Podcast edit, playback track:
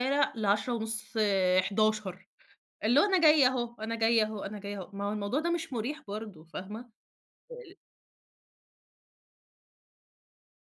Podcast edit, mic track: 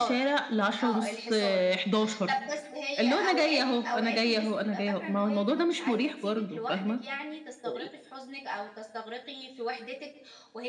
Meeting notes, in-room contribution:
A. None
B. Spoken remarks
B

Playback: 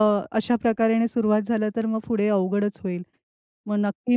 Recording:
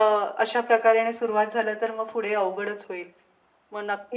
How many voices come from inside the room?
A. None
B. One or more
A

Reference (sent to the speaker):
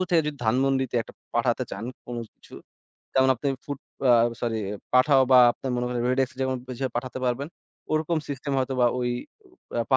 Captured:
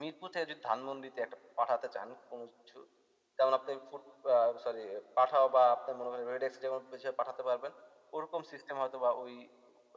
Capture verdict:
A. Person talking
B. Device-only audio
B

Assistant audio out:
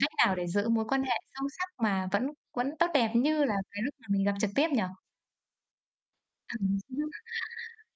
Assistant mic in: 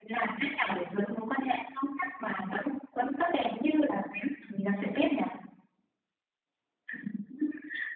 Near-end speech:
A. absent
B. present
A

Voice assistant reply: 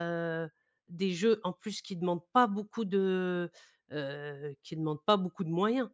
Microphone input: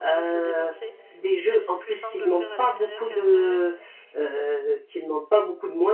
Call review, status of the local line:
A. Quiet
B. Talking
B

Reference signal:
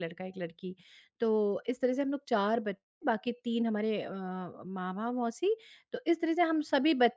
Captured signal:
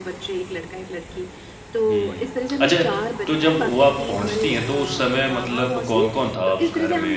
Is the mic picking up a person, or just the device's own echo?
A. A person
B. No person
A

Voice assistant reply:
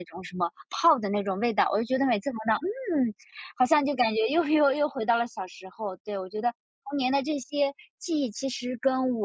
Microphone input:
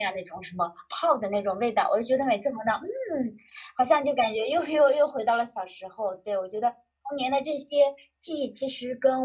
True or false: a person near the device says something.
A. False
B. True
A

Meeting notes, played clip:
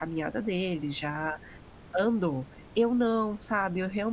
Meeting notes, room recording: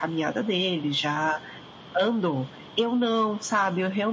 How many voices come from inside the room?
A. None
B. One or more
A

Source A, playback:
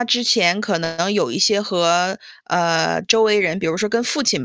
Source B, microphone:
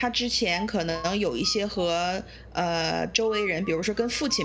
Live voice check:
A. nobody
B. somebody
A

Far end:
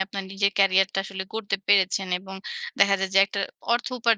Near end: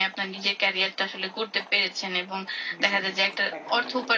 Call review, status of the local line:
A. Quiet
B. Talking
B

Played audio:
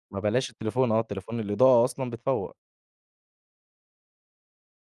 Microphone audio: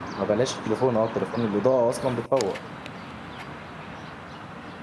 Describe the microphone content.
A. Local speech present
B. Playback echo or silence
B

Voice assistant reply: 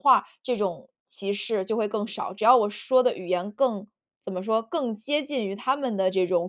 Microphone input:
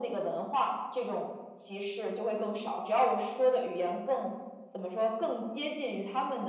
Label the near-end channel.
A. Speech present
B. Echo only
B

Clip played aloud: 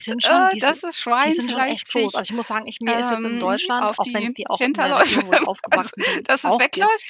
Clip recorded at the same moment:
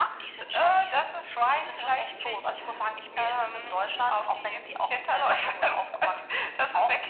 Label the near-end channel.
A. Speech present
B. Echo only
B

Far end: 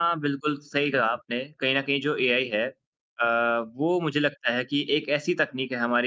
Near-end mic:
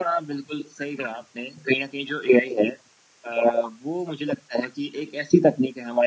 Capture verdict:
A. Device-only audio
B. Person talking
A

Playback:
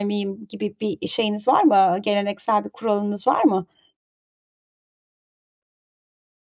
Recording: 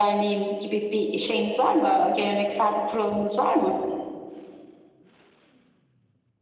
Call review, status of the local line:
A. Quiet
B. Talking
A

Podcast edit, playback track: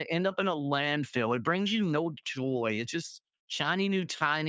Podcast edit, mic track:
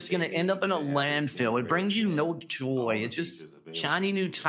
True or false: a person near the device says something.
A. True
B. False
A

